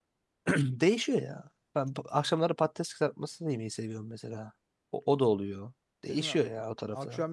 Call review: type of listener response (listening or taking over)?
taking over